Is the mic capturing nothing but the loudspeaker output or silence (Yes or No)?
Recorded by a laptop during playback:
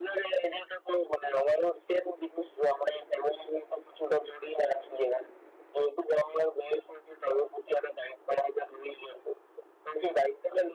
Yes